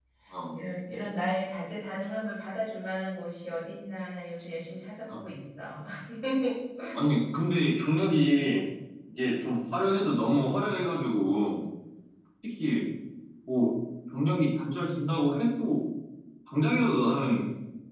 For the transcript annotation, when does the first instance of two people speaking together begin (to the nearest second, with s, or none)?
none